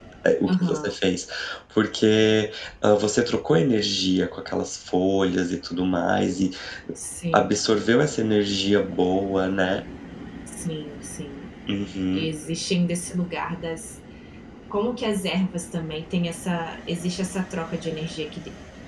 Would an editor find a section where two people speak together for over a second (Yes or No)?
No